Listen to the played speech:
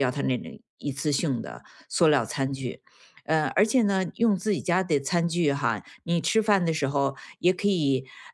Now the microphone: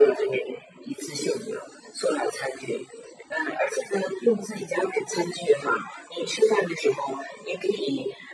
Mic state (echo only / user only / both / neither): both